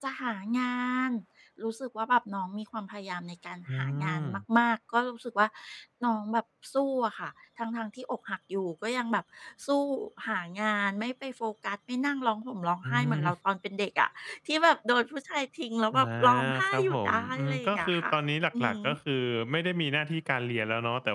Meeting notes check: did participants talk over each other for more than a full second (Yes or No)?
Yes